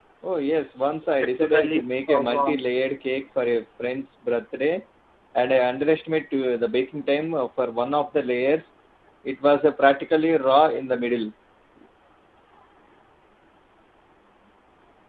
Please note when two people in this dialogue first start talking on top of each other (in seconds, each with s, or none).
1.1 s